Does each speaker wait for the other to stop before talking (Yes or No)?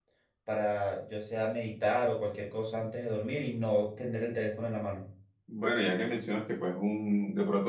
Yes